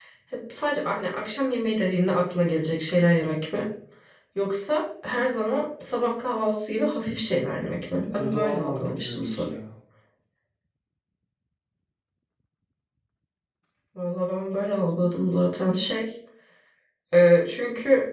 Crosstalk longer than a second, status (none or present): present